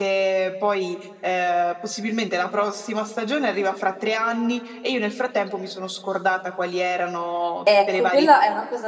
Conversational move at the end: taking over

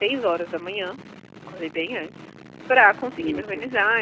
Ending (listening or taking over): listening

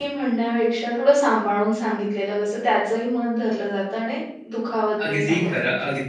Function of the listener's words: taking over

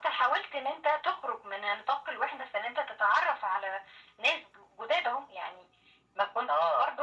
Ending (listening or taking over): listening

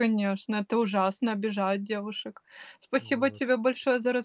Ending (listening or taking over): listening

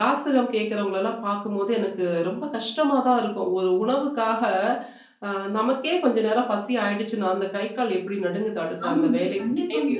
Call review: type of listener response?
listening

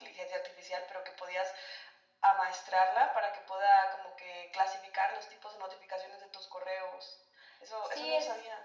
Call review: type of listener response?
taking over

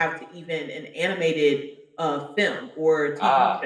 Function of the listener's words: taking over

